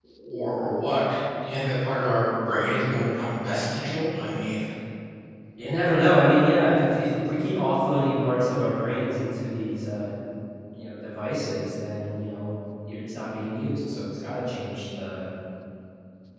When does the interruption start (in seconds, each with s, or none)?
none